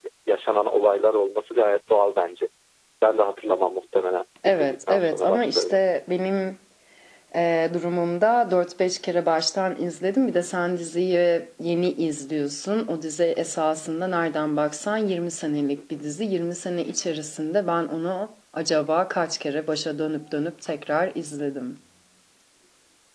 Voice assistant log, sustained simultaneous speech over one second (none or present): present